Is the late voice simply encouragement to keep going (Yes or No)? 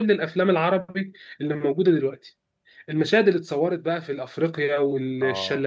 Yes